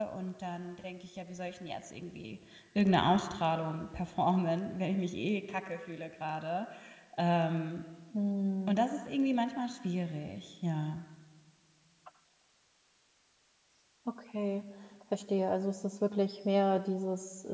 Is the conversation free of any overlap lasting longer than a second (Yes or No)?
Yes